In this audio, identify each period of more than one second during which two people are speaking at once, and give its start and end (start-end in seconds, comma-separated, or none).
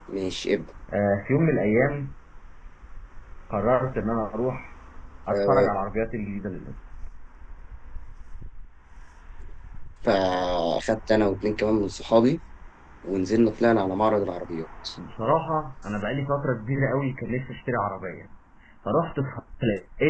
none